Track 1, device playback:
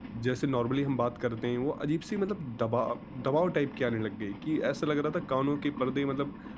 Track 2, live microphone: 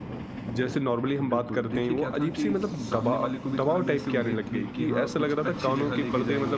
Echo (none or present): present